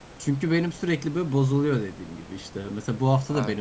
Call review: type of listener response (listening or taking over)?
listening